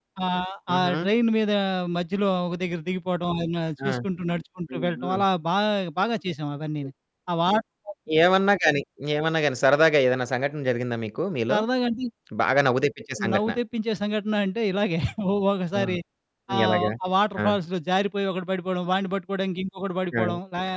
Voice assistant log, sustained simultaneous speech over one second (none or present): none